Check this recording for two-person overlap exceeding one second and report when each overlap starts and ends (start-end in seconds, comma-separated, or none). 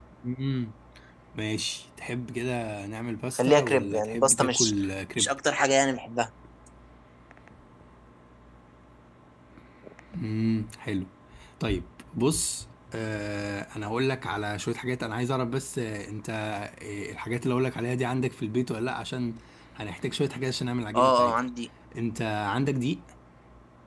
3.4-4.7